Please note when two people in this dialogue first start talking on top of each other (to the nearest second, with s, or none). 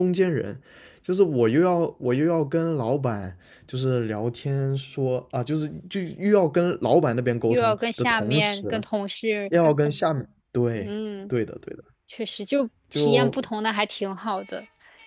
7 s